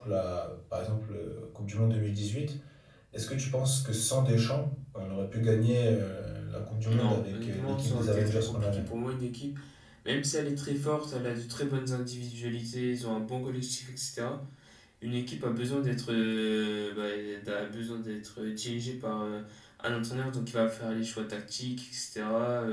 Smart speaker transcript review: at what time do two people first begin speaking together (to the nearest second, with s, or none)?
7 s